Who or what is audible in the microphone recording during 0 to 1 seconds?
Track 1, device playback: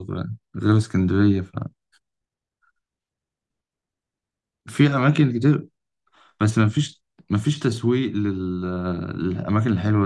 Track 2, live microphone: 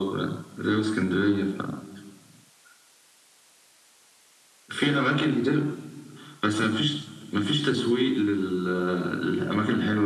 echo only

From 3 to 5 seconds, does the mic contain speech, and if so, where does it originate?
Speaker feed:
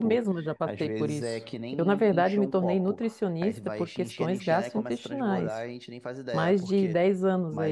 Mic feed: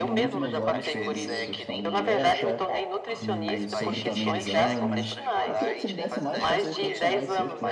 both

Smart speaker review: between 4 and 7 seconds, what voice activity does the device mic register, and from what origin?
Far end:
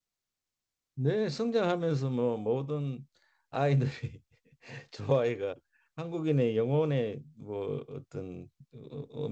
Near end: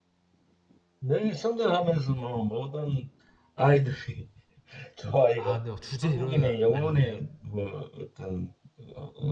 both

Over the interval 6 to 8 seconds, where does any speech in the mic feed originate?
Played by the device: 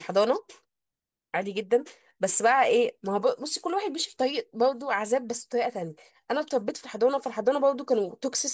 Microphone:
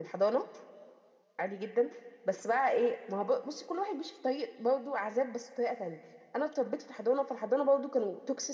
echo only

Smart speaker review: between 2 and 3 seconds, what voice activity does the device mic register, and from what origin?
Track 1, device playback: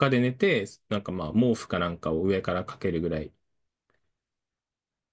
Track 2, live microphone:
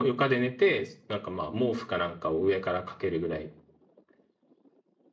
echo only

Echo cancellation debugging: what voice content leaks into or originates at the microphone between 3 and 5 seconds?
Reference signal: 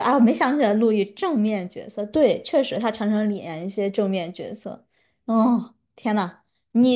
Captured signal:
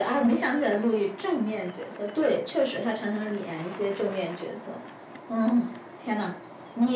echo only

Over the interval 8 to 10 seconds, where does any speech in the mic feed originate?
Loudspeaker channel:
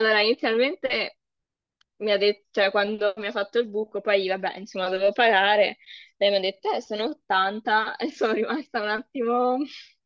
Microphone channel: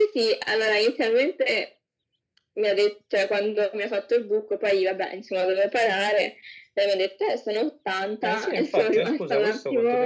both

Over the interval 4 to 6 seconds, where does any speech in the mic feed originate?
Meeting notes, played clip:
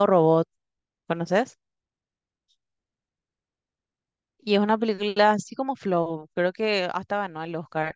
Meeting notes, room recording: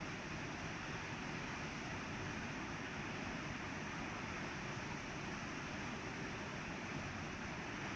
neither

